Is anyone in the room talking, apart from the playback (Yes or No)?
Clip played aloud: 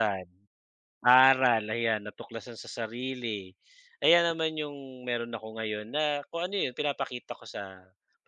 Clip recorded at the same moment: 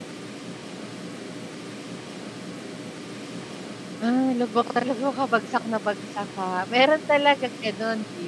Yes